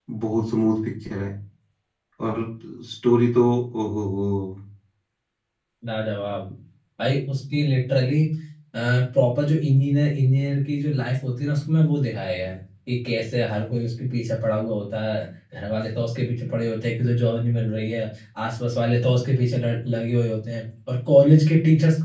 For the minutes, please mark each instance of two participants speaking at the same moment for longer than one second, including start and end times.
none

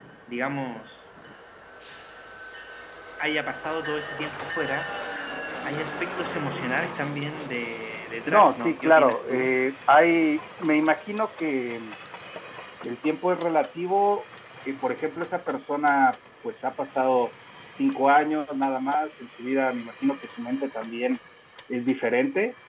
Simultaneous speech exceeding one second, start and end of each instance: 8.2-9.5

